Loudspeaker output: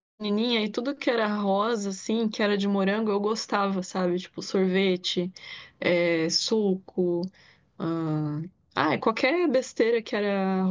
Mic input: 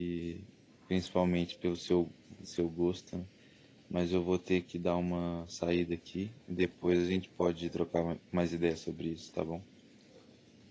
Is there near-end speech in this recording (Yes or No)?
Yes